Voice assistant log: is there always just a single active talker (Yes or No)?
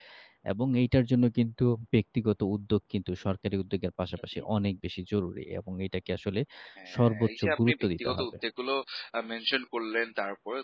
No